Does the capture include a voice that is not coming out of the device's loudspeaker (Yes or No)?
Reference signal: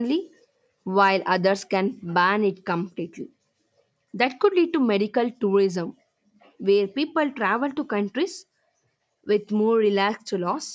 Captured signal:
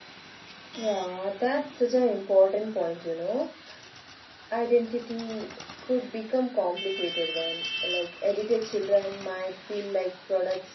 Yes